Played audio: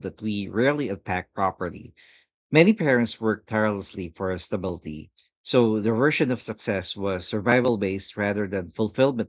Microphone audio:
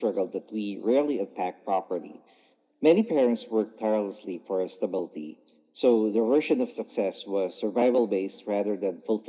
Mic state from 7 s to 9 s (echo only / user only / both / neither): echo only